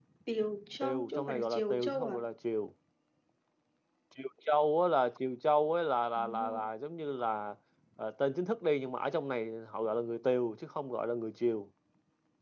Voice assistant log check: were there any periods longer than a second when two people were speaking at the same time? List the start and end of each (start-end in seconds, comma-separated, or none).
0.8-2.2